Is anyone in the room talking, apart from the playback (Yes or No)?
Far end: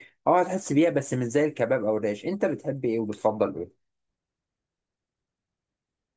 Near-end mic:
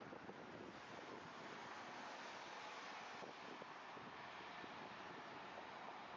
No